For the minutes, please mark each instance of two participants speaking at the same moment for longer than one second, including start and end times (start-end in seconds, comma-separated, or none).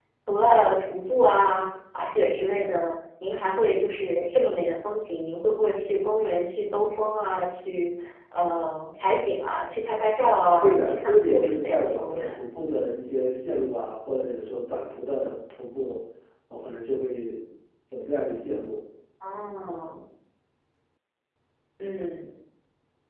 10.6-12.4